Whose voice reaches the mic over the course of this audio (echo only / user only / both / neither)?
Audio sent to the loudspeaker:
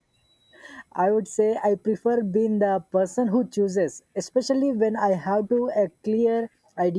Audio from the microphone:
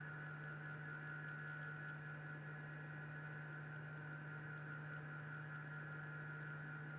neither